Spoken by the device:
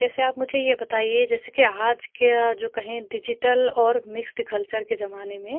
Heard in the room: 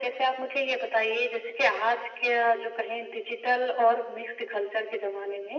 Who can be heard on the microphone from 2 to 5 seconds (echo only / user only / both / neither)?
echo only